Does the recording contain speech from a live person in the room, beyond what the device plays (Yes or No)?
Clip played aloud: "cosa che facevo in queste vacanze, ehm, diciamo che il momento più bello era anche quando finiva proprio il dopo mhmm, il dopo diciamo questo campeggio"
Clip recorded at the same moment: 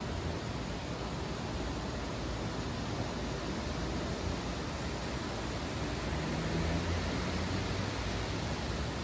No